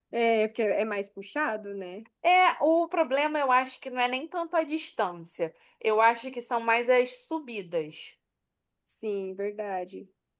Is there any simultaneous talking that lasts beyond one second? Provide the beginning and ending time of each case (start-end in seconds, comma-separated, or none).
none